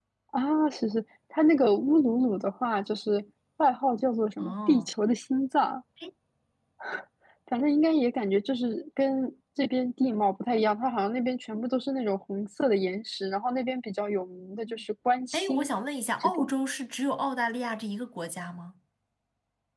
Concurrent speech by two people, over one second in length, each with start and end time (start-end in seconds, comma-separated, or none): none